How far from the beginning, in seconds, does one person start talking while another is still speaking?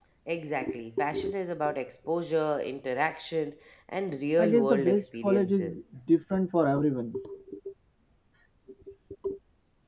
4.4 s

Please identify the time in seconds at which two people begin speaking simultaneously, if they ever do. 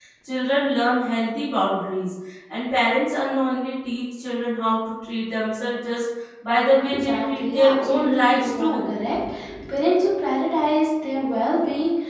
6.8 s

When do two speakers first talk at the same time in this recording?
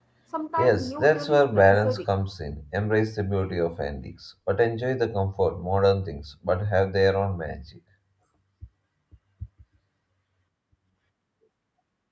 0.6 s

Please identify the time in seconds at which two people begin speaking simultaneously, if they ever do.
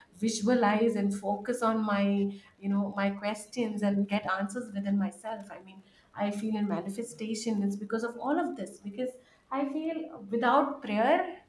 none

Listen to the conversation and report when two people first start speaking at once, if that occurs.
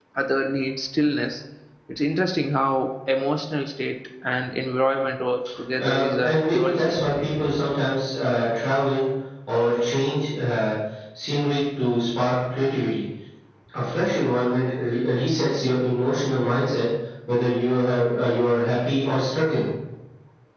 5.8 s

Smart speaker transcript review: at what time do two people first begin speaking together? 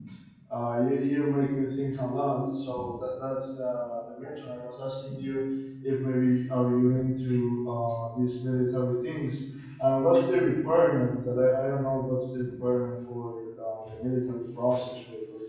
none

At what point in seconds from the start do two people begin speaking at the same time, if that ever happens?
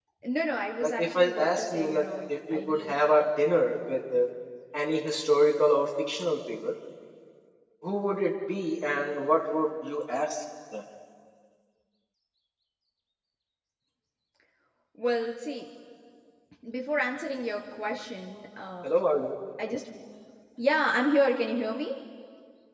0.8 s

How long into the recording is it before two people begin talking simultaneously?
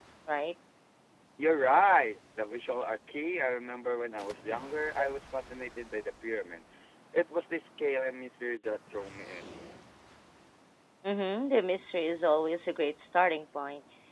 none

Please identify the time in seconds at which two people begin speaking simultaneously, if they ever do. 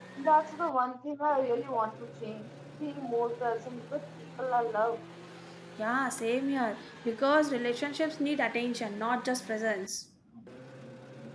none

